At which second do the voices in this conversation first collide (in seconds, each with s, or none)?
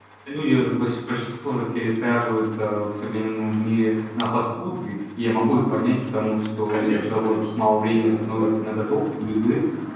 6.7 s